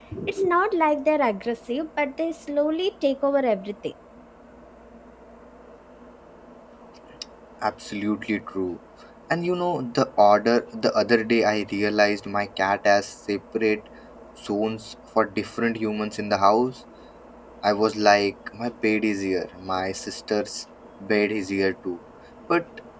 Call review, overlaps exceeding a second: none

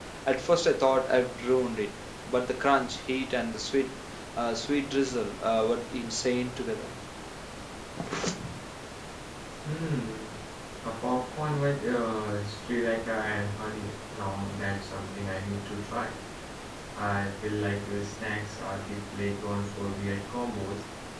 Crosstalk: none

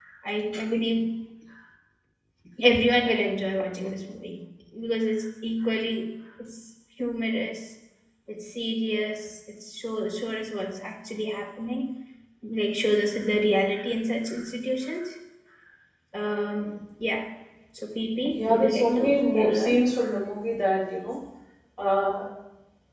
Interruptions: present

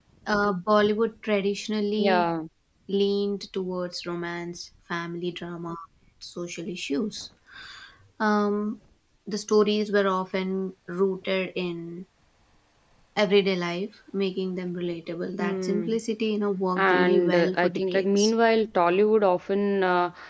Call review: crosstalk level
present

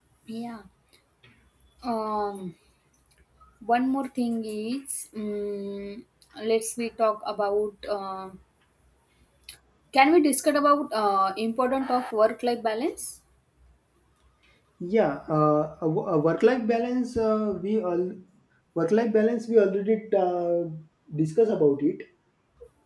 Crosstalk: none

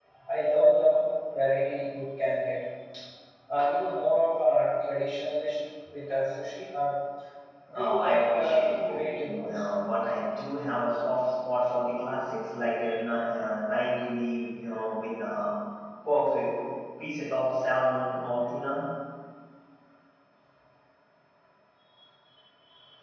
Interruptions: present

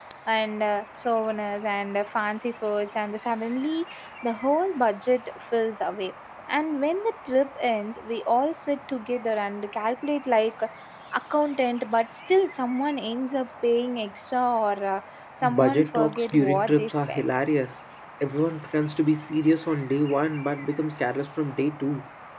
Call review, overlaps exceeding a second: present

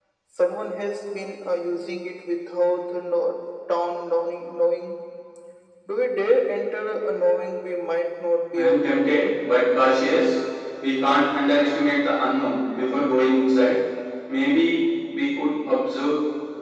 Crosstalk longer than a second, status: none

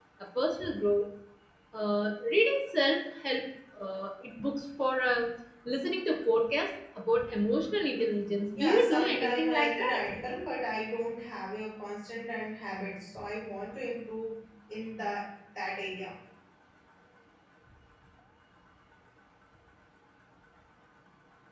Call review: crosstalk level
present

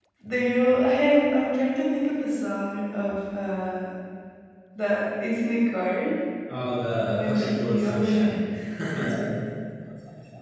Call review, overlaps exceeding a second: present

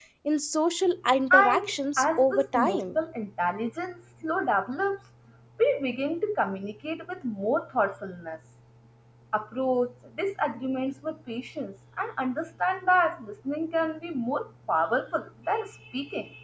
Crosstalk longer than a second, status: present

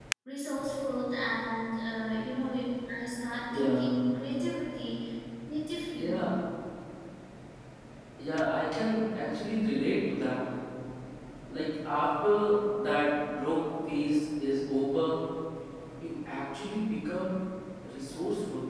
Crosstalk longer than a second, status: none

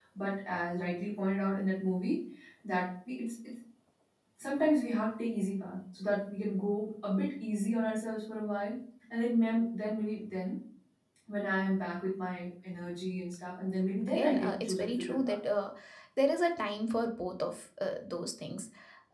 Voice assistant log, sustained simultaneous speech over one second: present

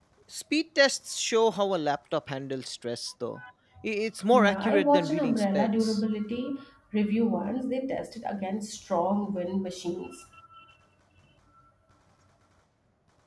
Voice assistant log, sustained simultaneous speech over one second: present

